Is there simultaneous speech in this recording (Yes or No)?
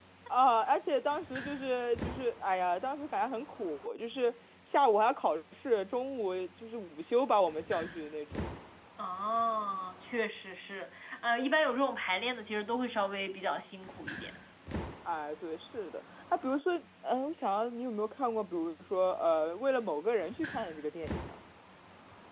No